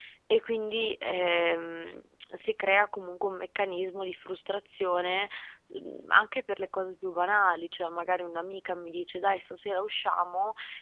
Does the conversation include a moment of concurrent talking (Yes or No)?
No